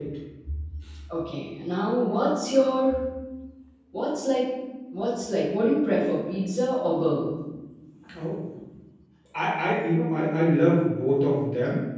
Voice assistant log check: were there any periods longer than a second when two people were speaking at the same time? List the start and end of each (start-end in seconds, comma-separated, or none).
none